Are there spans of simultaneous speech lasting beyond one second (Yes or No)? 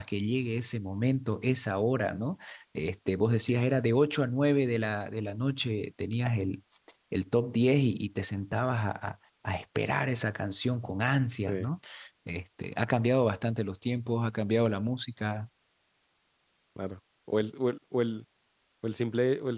No